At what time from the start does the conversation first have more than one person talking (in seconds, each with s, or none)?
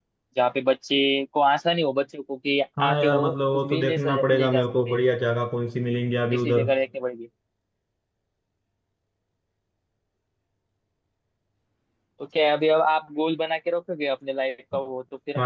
2.8 s